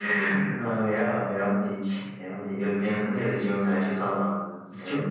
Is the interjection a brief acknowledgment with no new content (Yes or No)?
No